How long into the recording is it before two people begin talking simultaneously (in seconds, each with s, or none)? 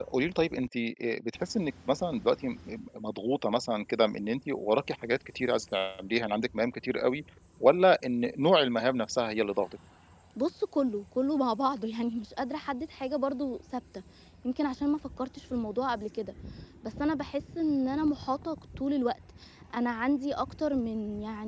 none